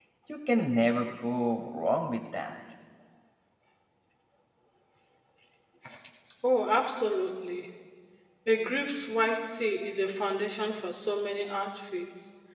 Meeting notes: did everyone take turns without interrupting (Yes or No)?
Yes